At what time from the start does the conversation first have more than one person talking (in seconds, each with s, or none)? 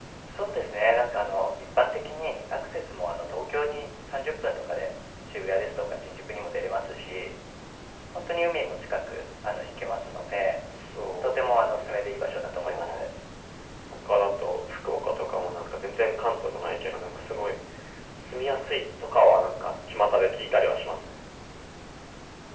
11.2 s